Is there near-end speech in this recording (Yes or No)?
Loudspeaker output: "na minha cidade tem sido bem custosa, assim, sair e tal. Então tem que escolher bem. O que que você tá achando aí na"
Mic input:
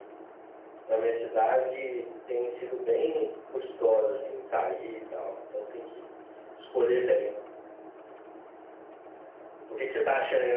No